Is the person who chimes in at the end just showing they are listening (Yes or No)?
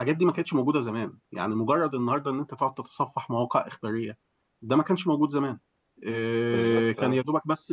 Yes